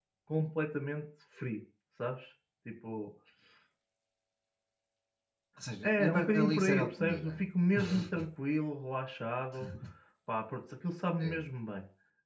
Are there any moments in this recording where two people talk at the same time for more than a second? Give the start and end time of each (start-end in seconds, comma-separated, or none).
5.8-7.3